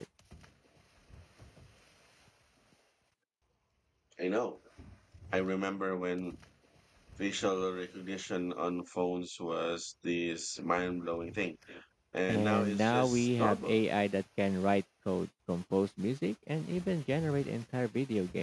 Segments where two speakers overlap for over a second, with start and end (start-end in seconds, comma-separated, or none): 12.3-13.8